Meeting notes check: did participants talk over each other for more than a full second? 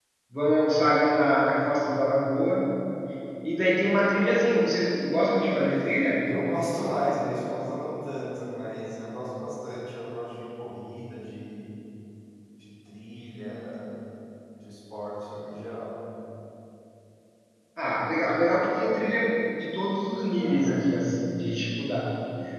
No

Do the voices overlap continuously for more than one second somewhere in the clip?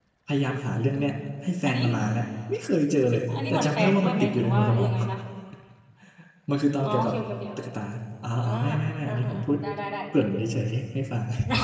Yes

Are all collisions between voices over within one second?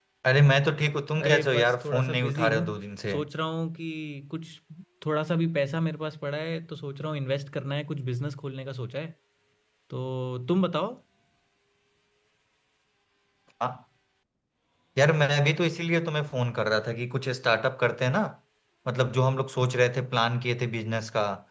No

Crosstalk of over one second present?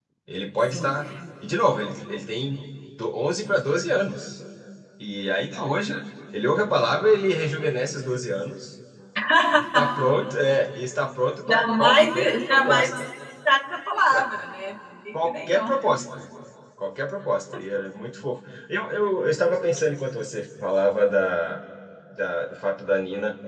Yes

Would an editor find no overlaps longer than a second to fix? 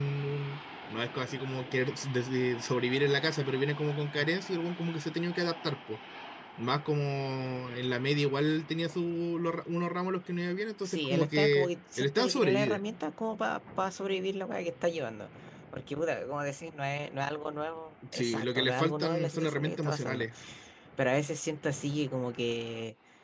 No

